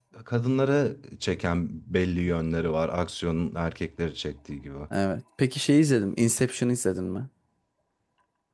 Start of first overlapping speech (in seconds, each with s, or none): none